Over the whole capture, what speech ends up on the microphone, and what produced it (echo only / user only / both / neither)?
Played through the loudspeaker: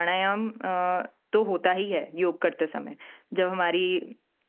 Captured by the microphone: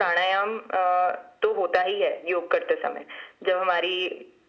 echo only